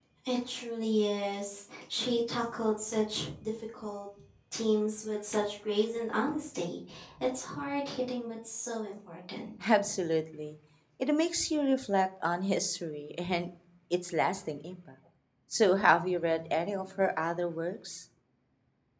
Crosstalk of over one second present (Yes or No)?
No